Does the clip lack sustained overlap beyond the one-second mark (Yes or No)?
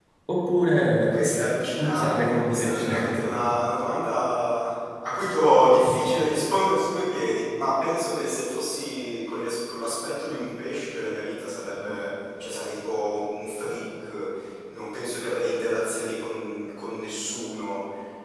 No